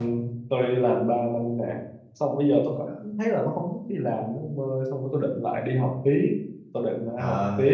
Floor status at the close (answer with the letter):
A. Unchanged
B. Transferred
B